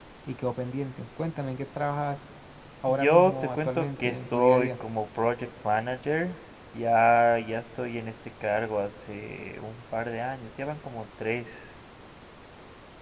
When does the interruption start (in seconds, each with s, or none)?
2.9 s